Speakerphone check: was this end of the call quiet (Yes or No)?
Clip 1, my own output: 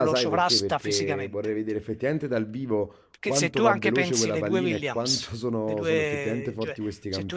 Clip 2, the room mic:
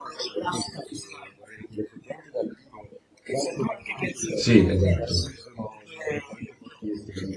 No